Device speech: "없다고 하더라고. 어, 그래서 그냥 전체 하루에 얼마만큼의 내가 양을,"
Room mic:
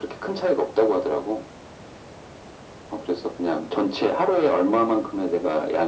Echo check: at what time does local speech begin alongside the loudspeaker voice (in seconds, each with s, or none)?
none